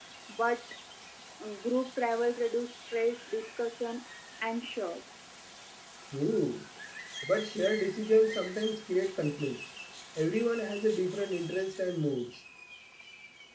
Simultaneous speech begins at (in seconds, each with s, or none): none